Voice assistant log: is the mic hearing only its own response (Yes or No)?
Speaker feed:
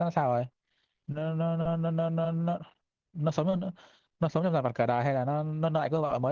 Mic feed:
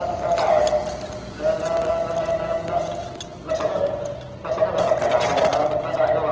Yes